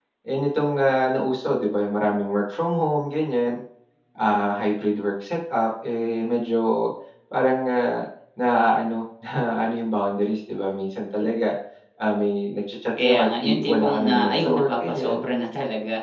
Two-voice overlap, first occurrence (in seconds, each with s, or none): 13.0 s